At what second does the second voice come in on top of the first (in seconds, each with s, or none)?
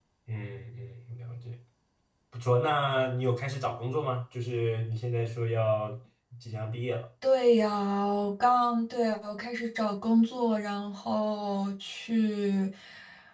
none